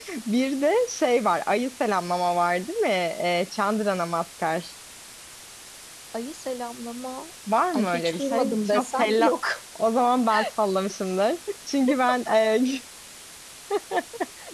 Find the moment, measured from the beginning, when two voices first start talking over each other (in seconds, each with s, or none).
7.7 s